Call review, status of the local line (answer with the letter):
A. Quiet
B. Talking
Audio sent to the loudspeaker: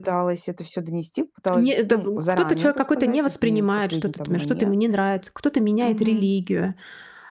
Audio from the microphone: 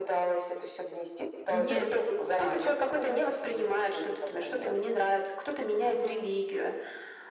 B